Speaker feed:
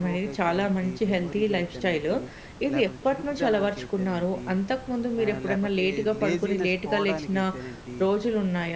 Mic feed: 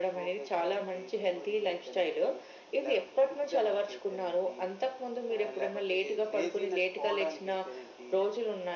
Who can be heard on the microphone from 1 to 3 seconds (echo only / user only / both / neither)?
echo only